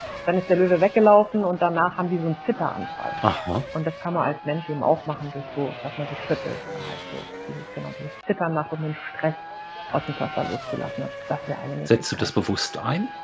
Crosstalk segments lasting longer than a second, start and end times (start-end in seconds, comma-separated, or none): none